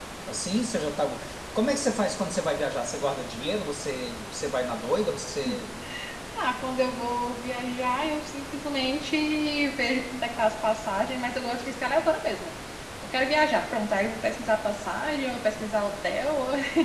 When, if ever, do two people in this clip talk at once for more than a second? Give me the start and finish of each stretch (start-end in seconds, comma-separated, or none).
none